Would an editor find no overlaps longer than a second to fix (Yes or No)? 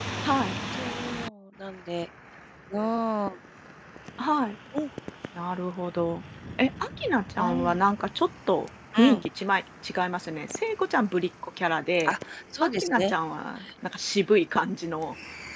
Yes